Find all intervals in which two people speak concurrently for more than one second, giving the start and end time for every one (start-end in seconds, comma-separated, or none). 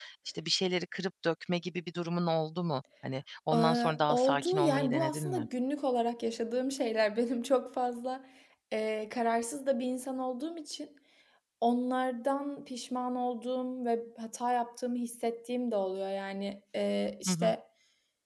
3.5-5.5